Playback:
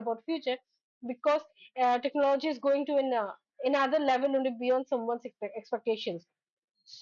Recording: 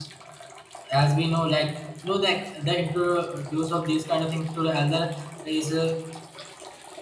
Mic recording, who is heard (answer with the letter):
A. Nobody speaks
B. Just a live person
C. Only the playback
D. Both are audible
B